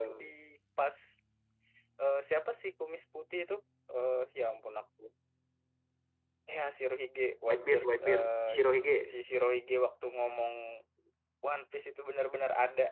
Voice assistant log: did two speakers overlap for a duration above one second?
Yes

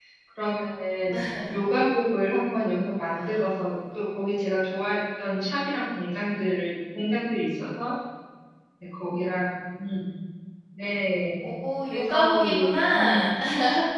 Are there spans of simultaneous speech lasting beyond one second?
Yes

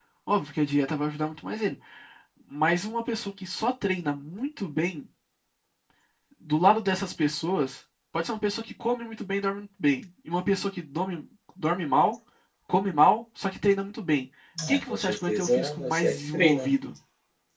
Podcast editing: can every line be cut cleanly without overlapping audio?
No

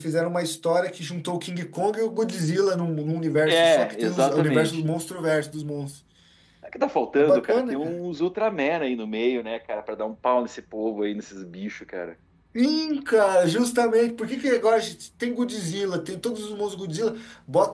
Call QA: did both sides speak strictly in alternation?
No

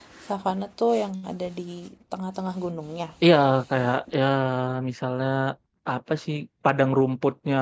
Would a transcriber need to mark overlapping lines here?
No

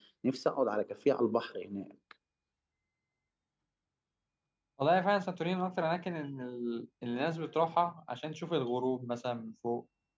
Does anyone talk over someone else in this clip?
No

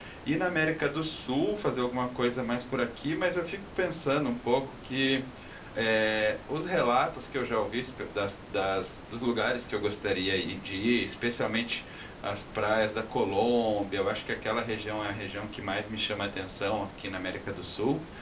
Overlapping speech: No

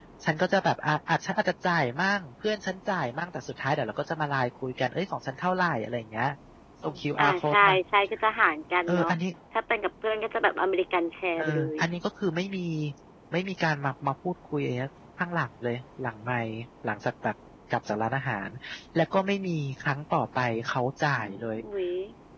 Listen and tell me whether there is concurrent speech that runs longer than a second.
No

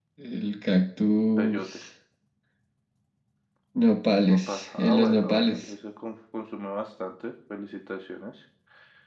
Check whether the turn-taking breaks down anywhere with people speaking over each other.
Yes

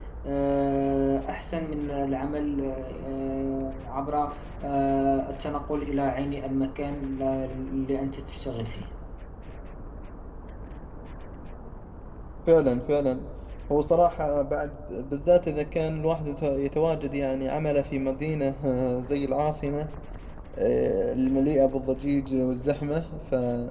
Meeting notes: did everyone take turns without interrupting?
Yes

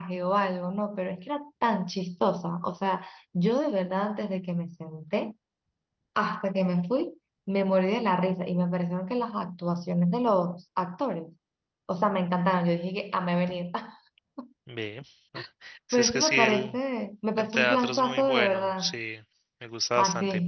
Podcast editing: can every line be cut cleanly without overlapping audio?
No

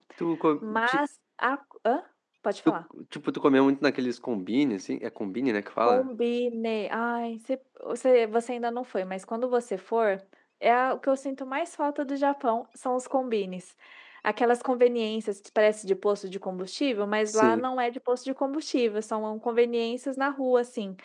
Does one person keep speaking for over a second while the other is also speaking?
No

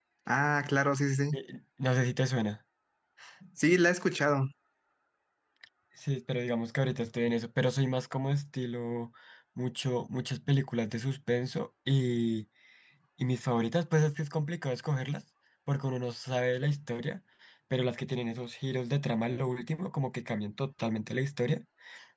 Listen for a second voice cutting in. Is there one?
No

